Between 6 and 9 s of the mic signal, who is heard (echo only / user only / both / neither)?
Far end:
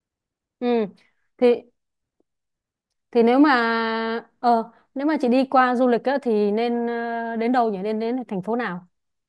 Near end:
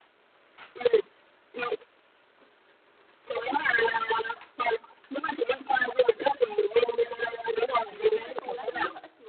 both